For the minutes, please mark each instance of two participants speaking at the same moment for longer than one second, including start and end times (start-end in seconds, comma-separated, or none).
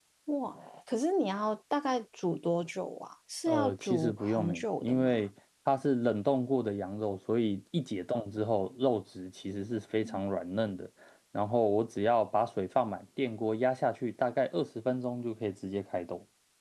3.5-5.2